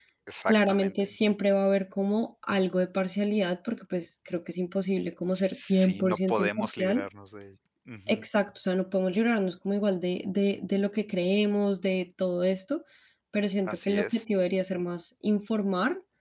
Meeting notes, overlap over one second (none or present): present